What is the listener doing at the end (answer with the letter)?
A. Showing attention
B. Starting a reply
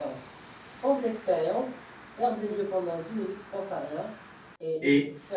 A